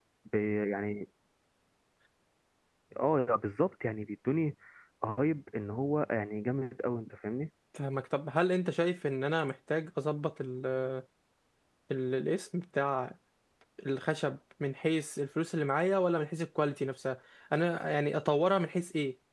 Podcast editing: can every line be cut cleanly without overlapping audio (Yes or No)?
Yes